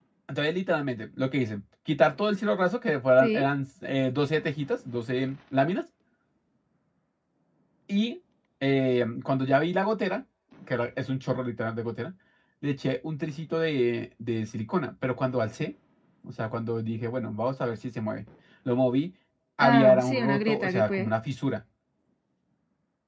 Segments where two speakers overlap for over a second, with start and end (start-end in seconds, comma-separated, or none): 19.6-21.1